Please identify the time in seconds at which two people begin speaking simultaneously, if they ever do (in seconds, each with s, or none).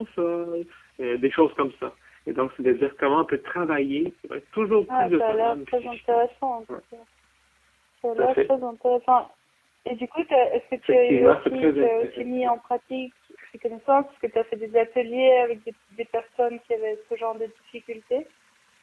4.9 s